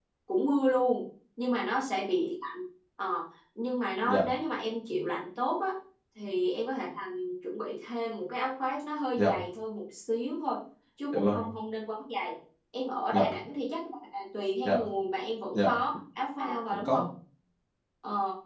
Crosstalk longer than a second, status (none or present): none